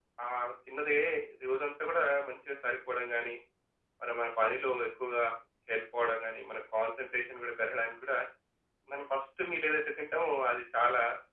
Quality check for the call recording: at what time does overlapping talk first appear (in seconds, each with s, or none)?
none